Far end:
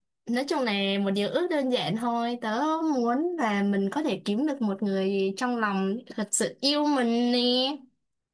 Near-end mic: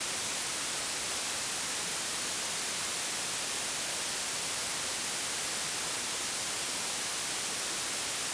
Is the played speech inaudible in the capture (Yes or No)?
Yes